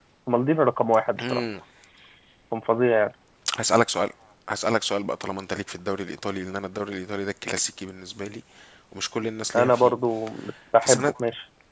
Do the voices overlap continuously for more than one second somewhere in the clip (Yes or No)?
No